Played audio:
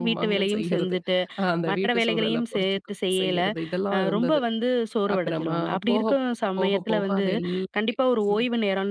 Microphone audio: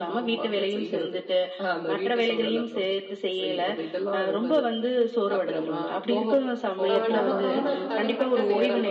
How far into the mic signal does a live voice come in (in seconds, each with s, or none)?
6.9 s